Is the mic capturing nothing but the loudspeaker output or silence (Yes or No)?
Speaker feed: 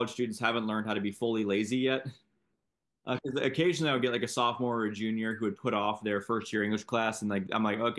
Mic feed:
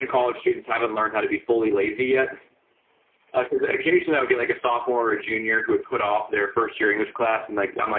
Yes